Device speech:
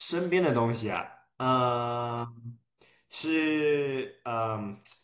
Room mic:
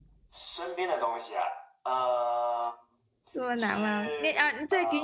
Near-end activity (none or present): present